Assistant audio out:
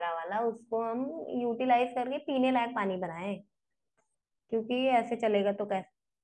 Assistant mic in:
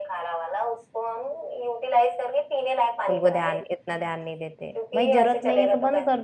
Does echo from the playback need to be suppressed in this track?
Yes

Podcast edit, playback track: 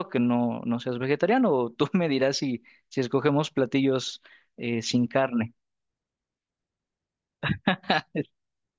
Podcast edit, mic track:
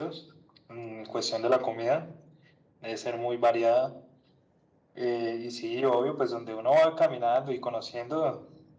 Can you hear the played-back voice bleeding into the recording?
No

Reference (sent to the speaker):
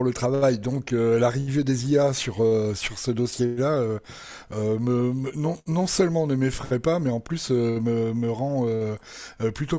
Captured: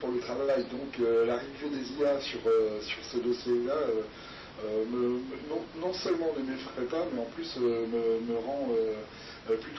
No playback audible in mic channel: No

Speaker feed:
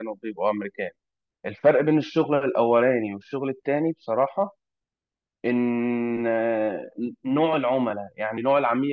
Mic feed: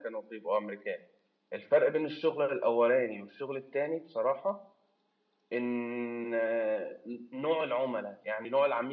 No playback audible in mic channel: No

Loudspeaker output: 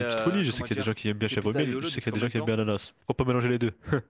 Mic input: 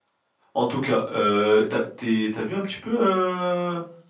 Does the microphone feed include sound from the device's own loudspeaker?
No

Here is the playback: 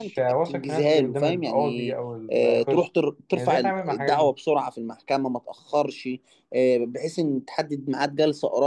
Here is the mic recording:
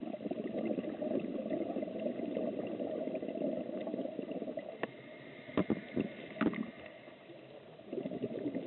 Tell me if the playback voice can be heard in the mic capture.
No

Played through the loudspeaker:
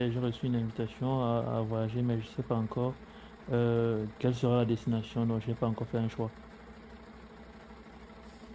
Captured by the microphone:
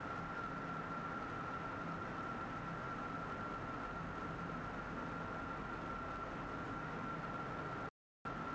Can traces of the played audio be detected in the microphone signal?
No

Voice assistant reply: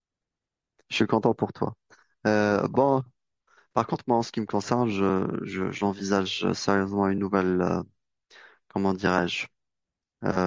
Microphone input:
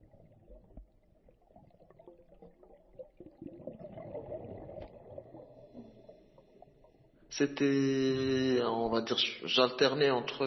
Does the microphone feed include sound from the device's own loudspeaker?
No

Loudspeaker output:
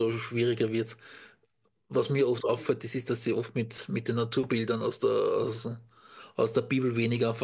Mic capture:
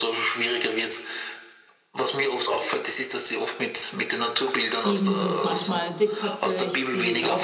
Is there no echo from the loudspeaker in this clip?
No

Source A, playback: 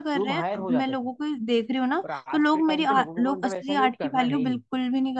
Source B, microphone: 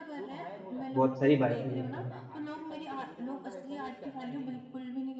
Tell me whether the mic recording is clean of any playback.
No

